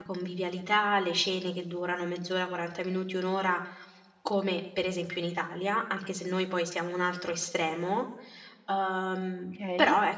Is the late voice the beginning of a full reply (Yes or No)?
Yes